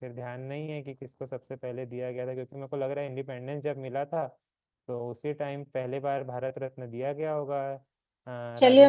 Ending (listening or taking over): taking over